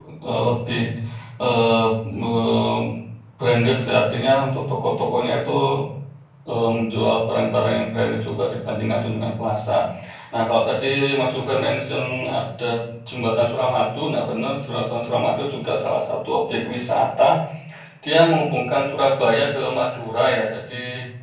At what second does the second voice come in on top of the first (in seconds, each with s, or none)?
none